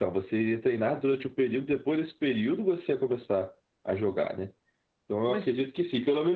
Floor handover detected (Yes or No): No